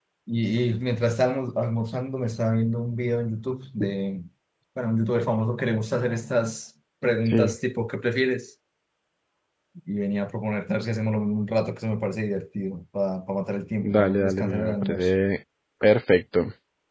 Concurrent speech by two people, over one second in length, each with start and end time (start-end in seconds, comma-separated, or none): 13.8-15.1